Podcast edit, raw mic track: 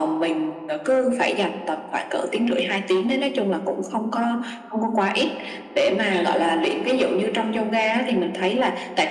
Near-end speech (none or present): none